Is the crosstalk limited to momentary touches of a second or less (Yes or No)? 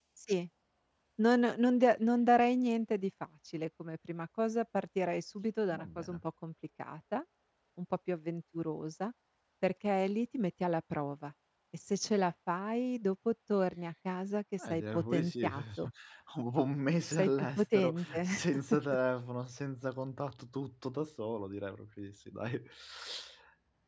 No